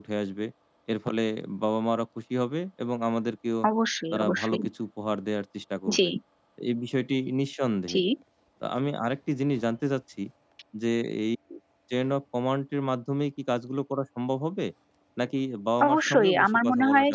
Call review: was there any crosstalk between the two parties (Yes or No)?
Yes